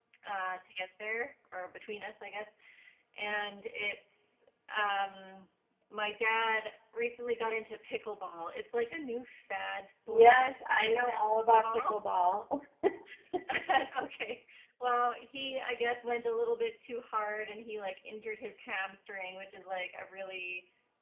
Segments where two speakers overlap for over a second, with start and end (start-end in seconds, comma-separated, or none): none